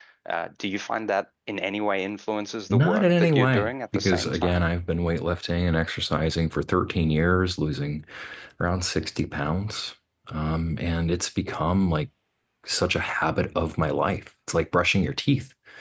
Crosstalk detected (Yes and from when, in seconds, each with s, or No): Yes, from 2.7 s